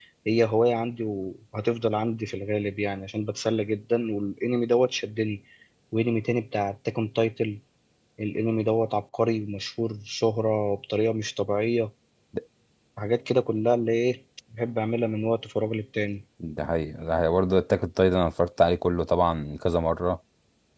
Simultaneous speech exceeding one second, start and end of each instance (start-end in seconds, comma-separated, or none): none